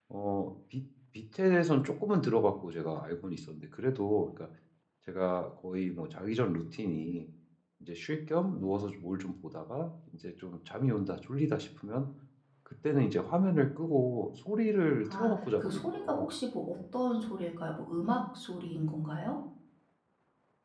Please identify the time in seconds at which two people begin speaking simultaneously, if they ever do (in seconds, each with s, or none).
15.0 s